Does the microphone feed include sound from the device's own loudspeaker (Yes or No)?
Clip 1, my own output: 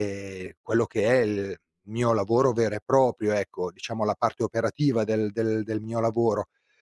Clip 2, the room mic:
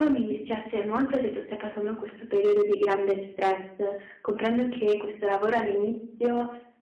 No